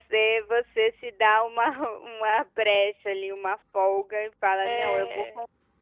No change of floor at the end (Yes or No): Yes